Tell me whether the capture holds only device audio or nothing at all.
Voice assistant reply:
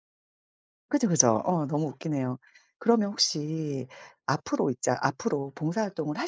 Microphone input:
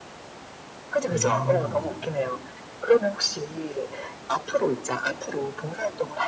No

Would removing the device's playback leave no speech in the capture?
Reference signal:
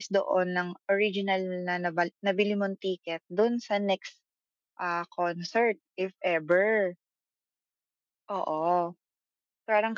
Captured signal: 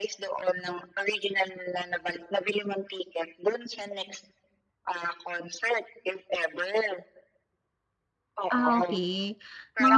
No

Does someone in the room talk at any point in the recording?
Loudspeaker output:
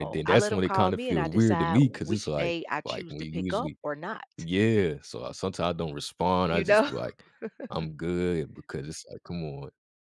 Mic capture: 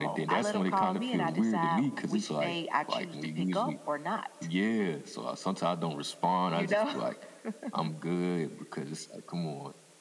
No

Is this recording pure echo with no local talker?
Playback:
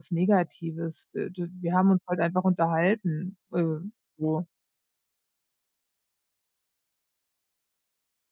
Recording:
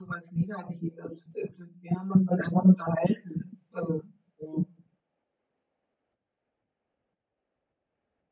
Yes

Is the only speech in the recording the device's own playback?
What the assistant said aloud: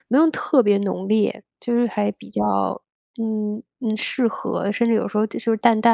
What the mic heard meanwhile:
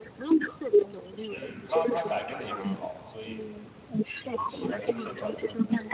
No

